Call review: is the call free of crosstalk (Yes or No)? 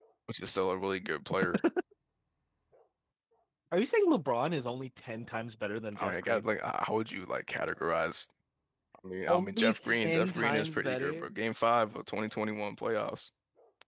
No